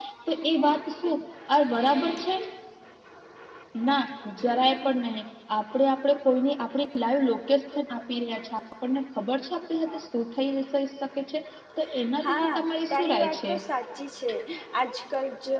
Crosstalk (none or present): present